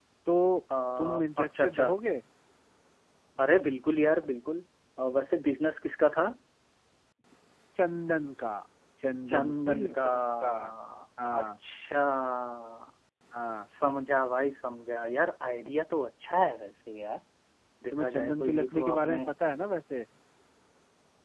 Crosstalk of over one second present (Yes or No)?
Yes